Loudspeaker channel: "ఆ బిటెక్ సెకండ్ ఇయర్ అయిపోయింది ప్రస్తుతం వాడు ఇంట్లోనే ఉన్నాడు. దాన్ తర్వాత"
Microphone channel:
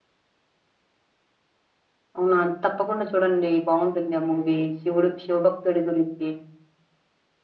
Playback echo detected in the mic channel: No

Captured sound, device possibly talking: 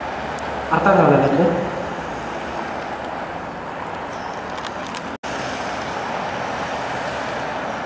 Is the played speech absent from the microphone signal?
Yes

